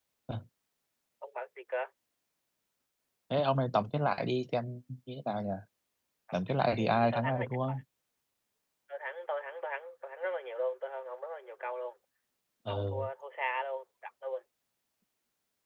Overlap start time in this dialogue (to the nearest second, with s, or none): 6 s